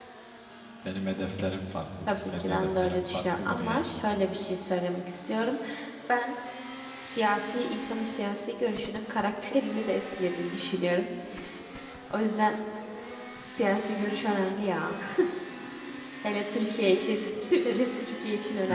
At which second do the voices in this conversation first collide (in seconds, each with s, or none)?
2.1 s